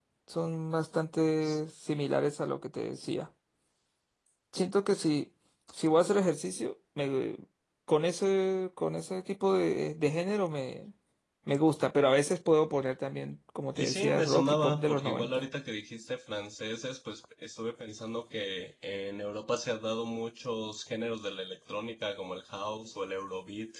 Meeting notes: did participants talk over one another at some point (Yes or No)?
Yes